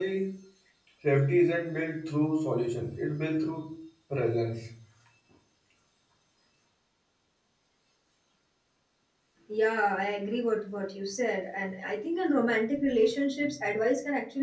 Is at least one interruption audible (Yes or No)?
No